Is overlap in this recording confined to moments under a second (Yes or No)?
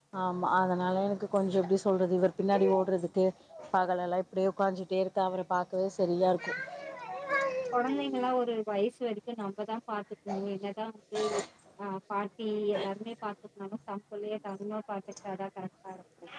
Yes